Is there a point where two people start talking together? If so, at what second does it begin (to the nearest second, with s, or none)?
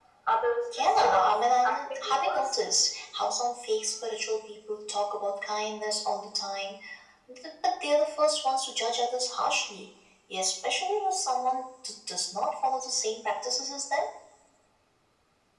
1 s